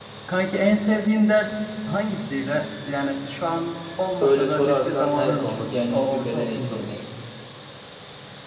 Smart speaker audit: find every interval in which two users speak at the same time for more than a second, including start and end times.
4.2-7.0

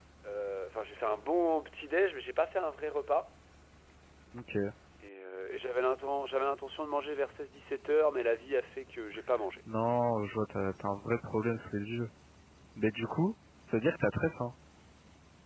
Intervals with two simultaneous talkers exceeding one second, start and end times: none

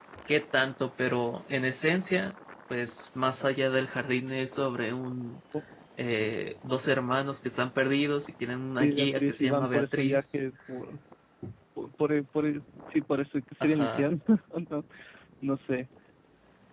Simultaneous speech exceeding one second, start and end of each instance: 8.8-10.4

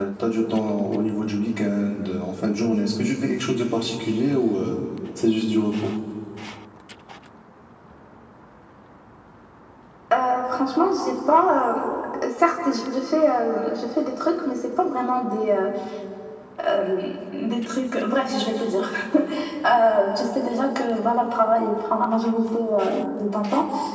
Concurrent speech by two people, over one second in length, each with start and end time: none

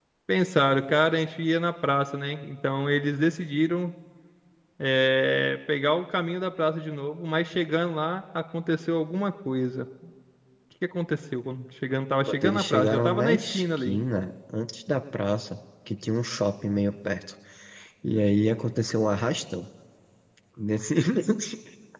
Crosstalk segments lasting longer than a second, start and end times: 12.2-14.0

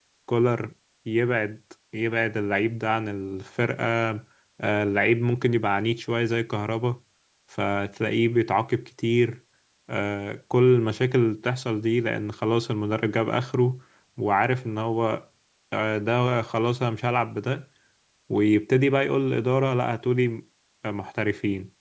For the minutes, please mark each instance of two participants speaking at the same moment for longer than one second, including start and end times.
none

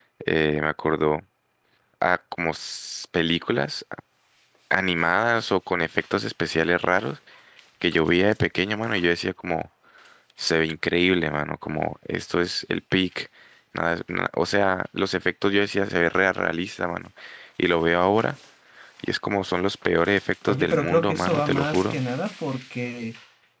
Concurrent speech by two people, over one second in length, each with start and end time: 20.5-22.0

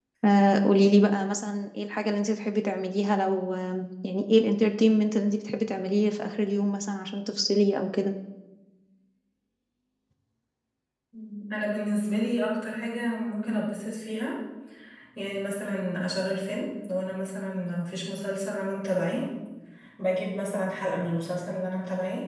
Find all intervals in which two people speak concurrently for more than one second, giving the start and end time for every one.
none

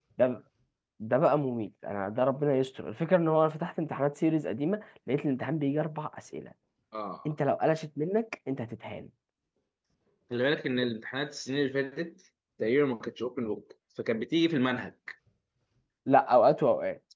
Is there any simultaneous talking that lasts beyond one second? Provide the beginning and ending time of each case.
none

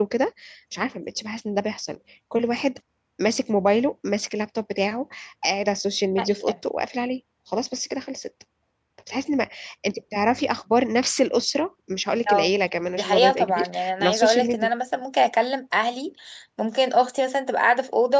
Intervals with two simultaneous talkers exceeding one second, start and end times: 13.0-14.7

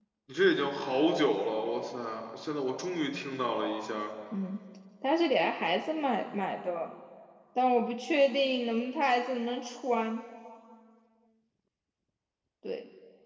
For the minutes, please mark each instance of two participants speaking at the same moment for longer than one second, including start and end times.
none

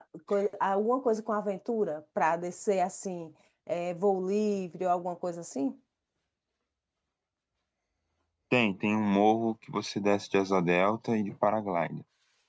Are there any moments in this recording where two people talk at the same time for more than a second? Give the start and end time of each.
none

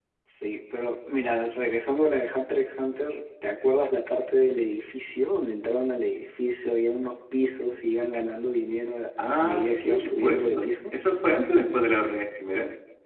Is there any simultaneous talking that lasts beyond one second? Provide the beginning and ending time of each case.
9.4-10.8

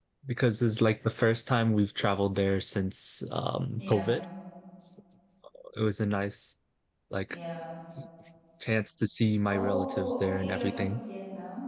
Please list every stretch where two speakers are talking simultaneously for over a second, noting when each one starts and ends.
9.4-11.0

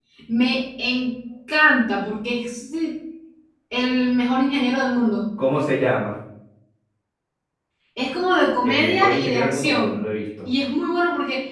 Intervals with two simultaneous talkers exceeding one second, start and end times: 8.7-10.0

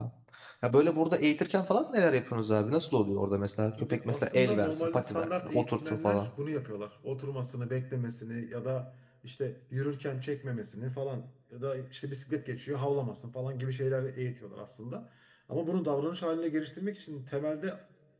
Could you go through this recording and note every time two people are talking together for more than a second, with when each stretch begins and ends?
3.8-6.3

